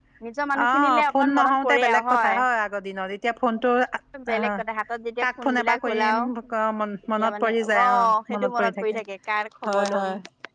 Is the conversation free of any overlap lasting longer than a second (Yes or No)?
No